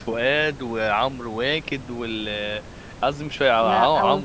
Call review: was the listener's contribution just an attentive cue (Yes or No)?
Yes